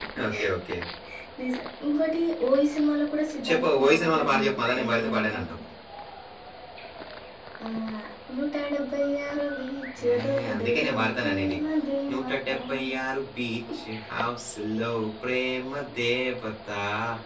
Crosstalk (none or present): present